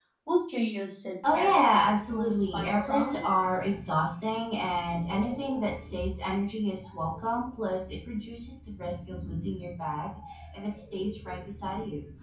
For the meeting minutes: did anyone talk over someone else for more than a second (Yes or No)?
Yes